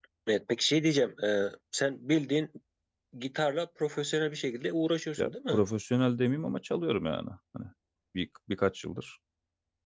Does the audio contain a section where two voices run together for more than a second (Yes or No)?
No